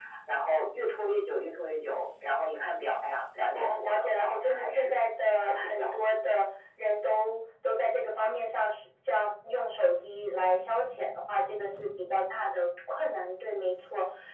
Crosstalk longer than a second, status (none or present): present